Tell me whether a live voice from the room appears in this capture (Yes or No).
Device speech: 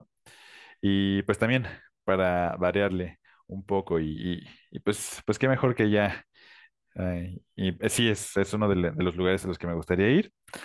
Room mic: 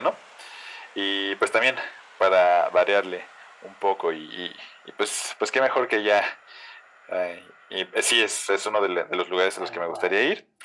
Yes